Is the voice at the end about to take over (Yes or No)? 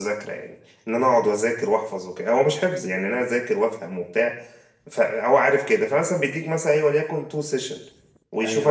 No